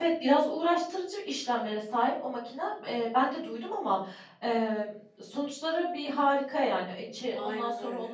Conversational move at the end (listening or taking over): listening